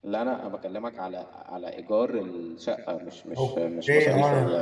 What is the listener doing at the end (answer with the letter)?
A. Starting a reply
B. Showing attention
A